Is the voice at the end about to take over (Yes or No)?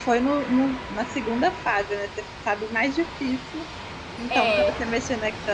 No